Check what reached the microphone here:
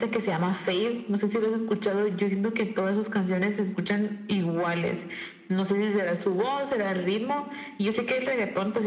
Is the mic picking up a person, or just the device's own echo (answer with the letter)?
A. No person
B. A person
A